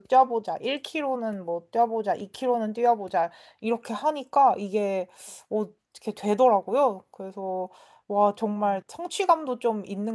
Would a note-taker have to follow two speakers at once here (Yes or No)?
No